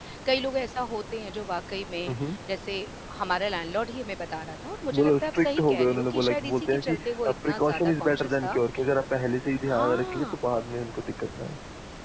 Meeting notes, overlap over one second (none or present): present